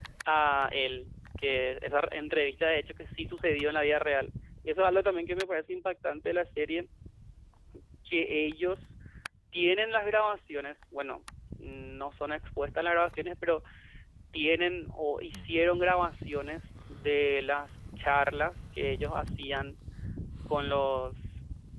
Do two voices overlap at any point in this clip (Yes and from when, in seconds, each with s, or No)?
No